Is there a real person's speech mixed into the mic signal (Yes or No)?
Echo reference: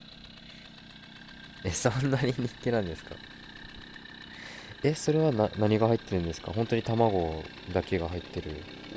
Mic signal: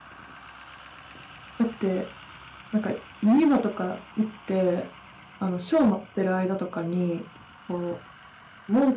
Yes